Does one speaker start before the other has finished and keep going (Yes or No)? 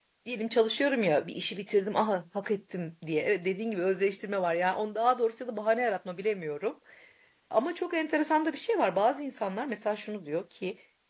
No